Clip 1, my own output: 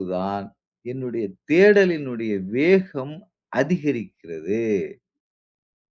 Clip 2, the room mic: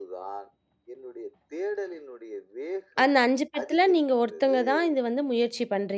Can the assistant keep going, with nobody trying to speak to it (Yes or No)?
No